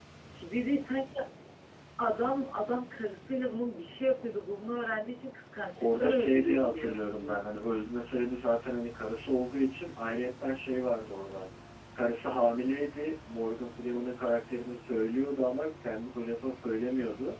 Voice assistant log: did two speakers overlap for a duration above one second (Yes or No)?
Yes